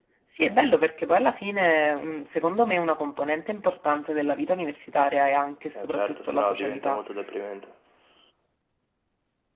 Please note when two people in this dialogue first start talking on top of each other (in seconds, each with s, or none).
5.8 s